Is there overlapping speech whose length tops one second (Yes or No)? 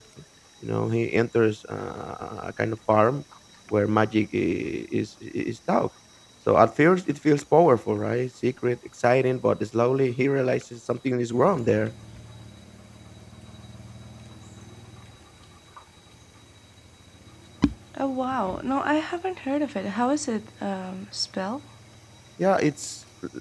No